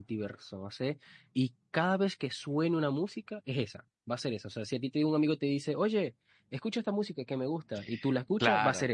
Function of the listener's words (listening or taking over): taking over